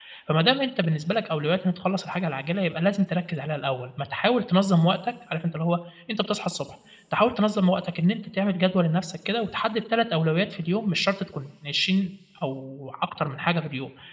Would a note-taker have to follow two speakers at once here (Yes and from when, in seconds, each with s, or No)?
No